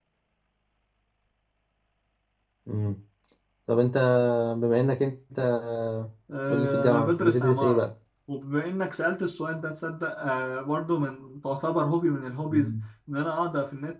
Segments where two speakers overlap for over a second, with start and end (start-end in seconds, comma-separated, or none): 6.5-7.8